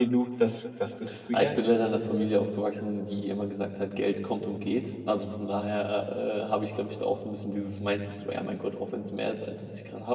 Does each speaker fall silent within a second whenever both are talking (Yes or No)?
Yes